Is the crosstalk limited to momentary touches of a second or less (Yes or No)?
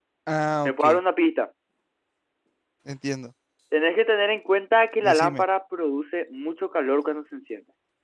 Yes